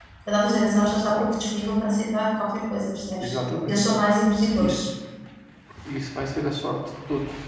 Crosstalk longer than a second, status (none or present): none